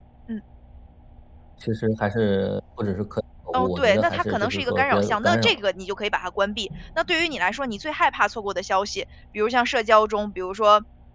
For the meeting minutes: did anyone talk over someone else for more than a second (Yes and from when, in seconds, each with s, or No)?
Yes, from 3.5 s